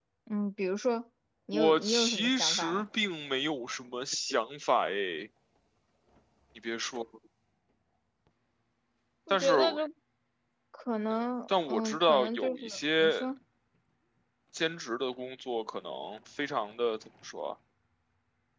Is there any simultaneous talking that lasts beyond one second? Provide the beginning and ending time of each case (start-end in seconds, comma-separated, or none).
1.5-2.9, 11.5-13.1